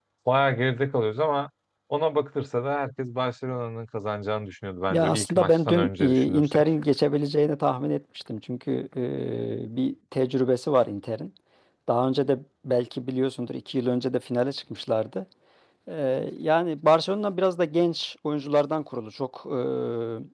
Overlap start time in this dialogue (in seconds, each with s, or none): 4.9 s